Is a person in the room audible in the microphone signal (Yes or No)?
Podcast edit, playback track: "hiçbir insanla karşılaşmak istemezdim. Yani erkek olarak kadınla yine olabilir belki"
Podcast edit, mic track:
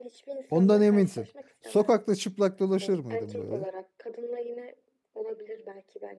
Yes